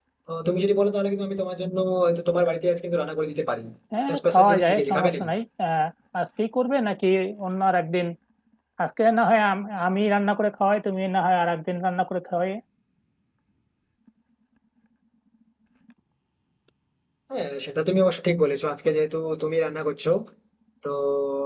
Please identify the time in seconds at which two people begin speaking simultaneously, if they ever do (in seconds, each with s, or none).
4.1 s